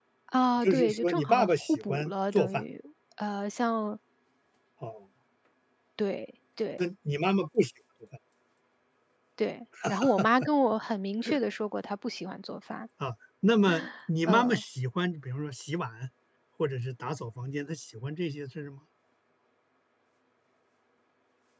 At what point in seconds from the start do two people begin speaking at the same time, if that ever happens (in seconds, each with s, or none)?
0.6 s